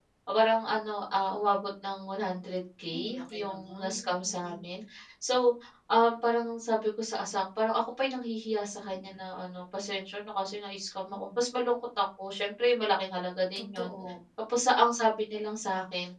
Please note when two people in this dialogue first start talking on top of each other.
3 s

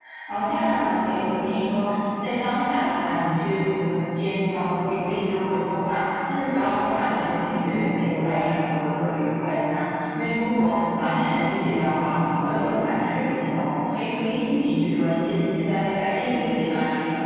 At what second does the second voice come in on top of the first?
none

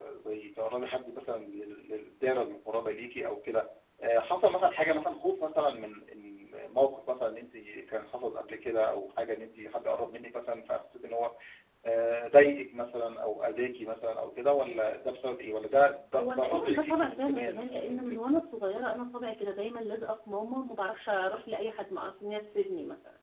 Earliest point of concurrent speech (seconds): 16 s

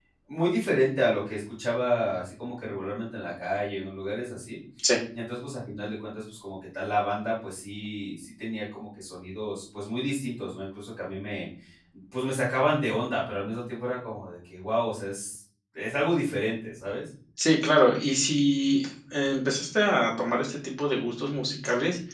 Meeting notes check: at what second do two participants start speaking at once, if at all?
none

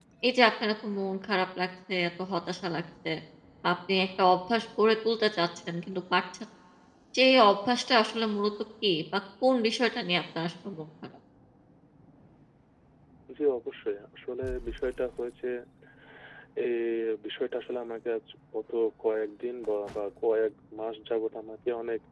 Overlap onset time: none

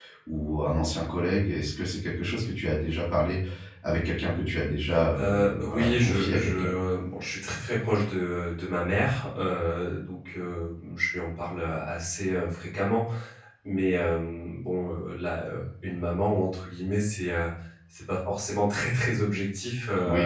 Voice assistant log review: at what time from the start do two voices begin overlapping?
5 s

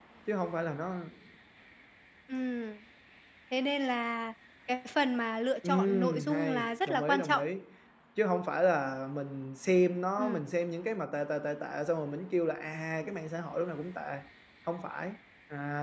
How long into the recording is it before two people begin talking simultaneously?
6 s

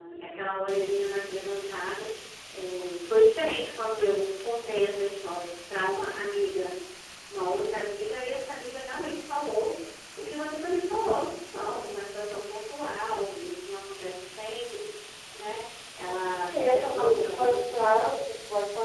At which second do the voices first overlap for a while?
16 s

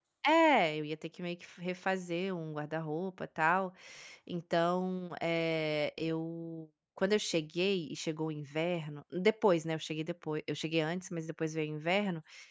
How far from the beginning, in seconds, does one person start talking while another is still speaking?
none

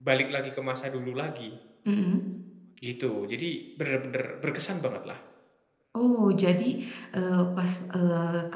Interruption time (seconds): none

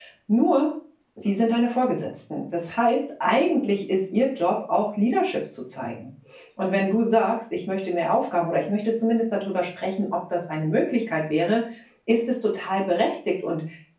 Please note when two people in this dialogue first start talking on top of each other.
none

